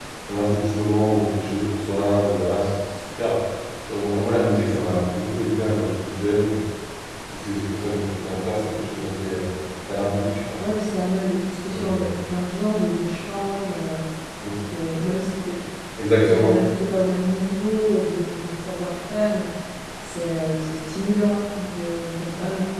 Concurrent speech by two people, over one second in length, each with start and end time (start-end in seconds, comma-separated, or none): none